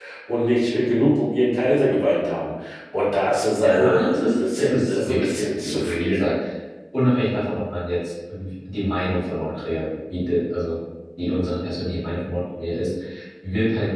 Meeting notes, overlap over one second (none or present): present